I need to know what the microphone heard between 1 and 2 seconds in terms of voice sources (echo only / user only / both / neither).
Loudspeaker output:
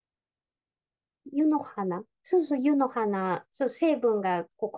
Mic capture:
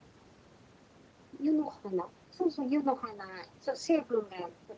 echo only